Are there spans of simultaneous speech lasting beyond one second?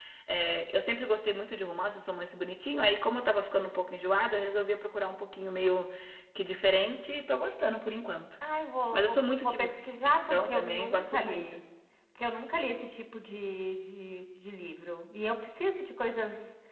Yes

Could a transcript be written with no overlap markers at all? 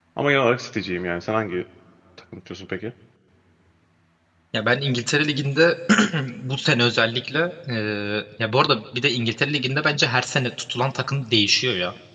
Yes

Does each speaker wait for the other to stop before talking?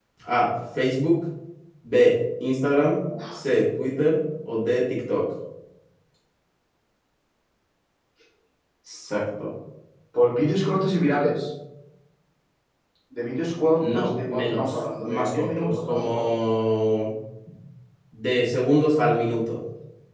No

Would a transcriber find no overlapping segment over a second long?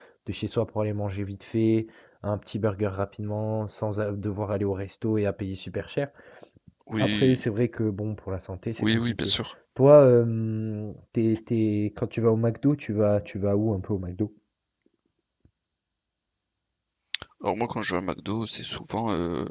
Yes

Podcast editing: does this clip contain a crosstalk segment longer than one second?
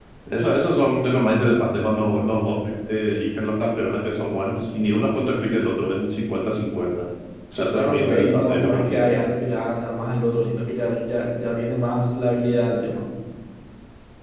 Yes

